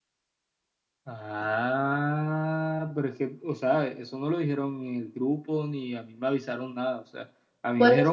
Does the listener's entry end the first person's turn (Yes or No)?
No